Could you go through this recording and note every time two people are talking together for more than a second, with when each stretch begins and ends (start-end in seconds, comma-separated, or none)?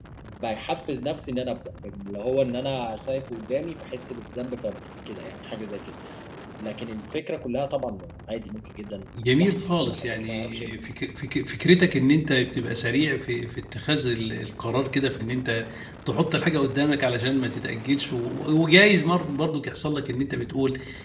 9.4-10.7